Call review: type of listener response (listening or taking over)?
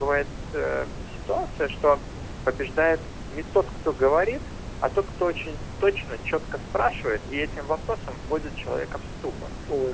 listening